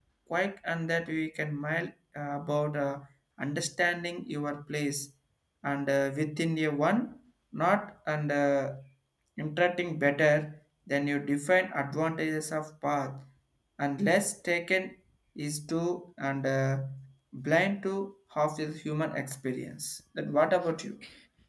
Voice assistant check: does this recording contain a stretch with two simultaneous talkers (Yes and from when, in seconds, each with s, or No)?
No